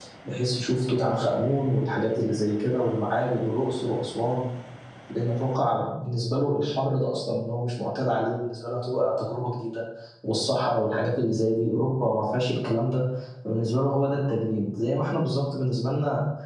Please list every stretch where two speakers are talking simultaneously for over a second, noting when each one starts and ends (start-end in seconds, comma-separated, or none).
none